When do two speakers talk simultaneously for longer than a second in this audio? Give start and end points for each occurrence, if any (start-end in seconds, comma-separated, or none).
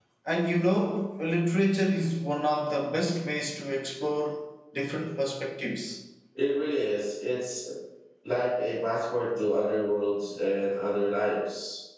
none